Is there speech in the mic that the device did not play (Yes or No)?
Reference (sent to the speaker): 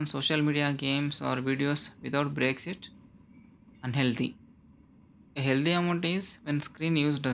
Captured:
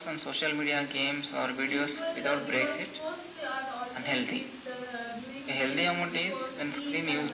Yes